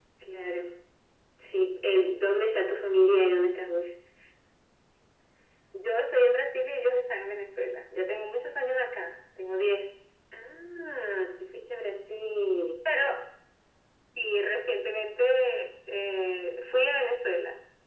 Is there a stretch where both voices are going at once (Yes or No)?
No